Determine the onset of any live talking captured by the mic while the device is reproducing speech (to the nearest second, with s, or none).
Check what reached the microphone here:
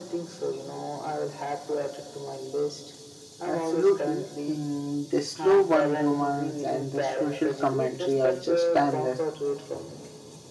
3 s